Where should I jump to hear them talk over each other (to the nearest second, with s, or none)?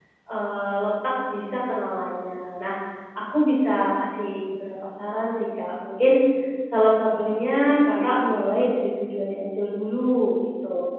7 s